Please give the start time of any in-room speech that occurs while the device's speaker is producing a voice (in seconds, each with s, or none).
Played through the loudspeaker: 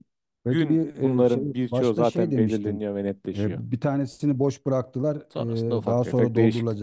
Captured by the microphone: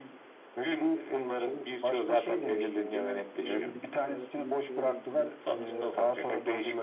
2.4 s